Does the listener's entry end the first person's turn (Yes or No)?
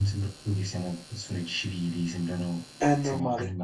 Yes